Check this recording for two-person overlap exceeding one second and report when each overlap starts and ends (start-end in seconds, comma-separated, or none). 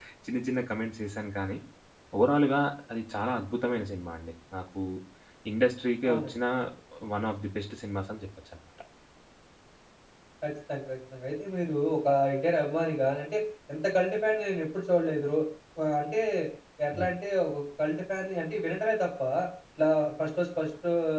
none